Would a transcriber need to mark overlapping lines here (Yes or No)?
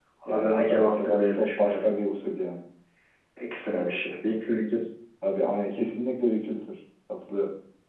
Yes